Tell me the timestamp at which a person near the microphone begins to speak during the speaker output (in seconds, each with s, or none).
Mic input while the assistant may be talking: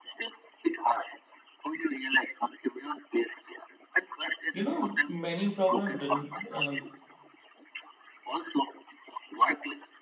4.5 s